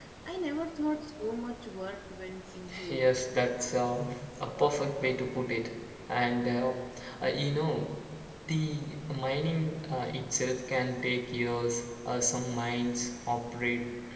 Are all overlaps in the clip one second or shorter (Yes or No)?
Yes